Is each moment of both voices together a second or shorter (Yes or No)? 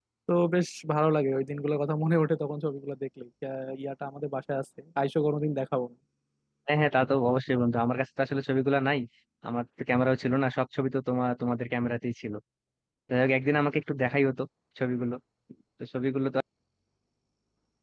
Yes